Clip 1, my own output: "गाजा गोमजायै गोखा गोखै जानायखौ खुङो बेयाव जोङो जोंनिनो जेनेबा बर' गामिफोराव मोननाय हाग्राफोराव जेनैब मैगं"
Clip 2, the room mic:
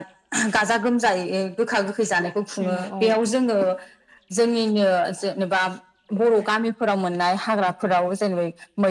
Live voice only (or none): औ औ